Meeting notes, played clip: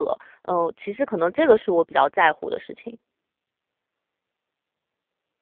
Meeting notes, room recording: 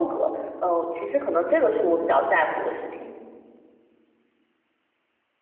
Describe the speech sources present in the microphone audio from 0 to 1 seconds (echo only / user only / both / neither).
echo only